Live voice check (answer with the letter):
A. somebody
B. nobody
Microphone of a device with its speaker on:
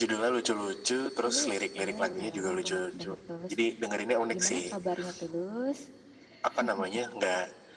B